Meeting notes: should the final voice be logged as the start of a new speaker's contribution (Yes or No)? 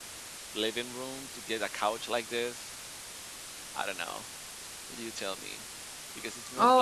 Yes